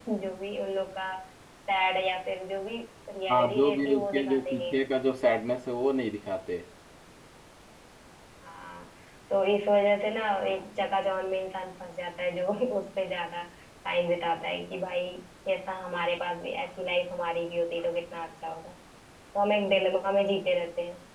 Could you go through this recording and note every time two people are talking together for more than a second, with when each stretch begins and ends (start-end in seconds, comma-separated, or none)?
3.3-4.8